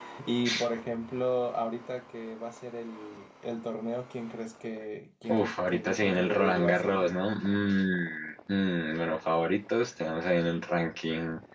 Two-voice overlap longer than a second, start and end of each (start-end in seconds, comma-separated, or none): 5.3-7.1